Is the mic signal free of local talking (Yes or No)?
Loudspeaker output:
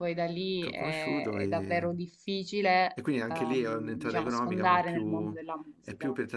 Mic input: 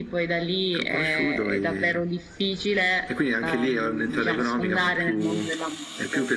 Yes